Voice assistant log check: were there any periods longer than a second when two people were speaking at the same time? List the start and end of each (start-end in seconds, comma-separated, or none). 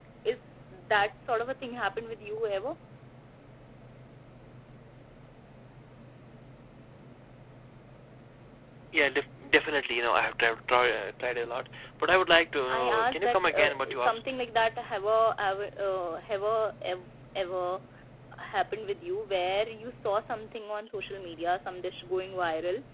12.7-14.2